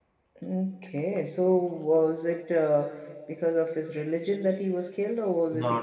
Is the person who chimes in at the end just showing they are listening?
No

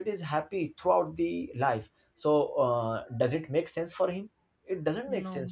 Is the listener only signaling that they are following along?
Yes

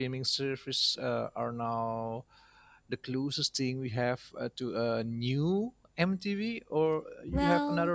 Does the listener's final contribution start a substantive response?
Yes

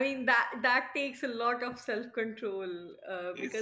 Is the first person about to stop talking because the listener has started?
No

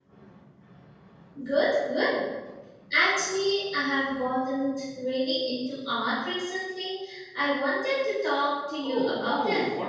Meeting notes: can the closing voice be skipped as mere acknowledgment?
No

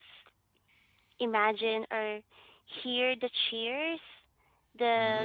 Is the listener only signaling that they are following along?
Yes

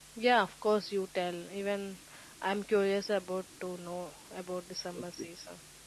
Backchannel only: No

